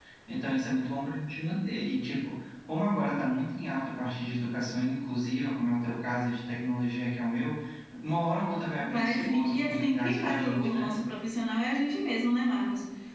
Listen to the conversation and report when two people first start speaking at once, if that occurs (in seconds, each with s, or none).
8.8 s